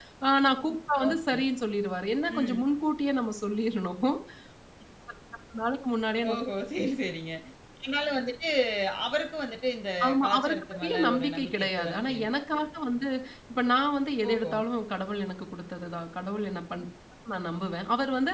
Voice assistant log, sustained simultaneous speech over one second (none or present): present